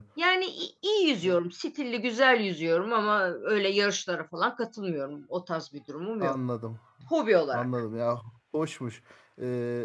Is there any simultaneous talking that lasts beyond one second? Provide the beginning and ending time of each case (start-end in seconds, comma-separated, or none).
none